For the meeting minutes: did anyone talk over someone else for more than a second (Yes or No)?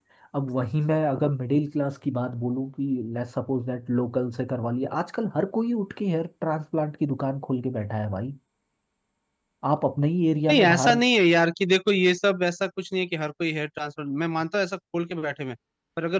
No